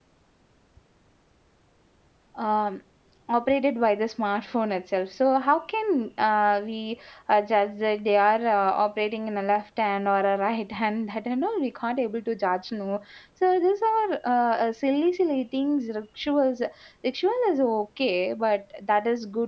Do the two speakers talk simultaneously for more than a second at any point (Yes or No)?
No